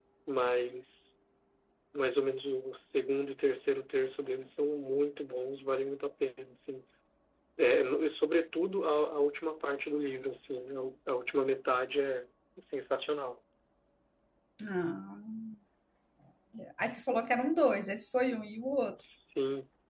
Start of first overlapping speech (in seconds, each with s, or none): none